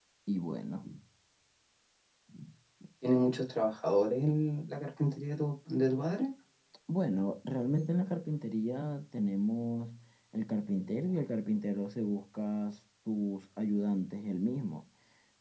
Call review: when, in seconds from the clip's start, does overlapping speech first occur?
none

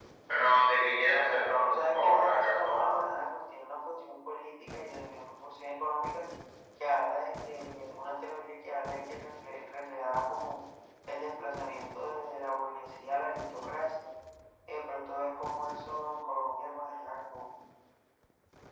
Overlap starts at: 1.7 s

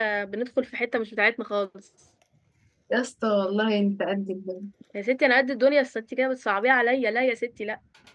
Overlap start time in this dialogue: none

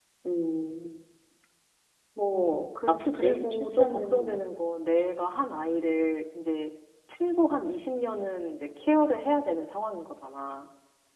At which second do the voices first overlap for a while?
2.3 s

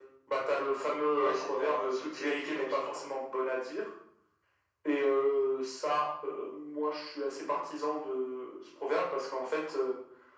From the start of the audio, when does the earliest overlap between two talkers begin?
1.2 s

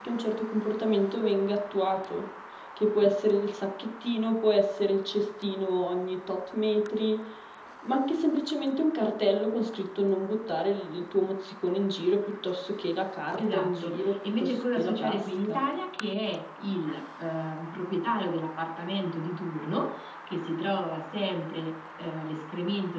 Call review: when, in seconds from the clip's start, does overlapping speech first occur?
13.4 s

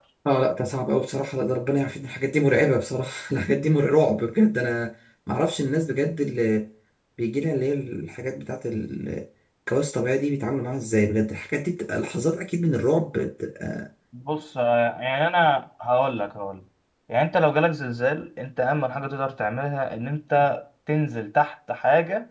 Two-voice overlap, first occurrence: none

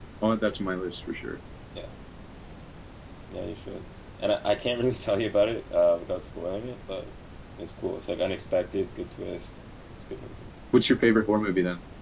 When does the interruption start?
none

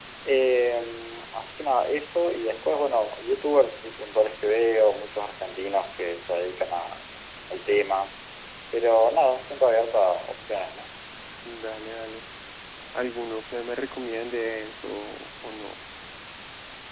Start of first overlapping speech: none

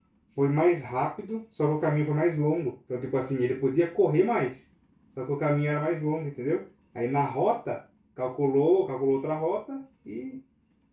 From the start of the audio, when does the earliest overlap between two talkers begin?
none

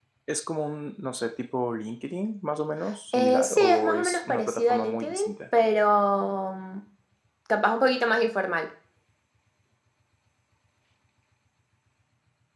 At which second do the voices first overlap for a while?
3.1 s

